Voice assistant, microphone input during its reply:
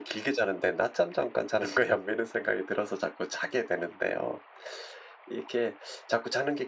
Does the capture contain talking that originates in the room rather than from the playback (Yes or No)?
No